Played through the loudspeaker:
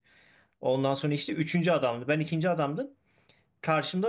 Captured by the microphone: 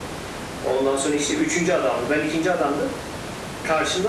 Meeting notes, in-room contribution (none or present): none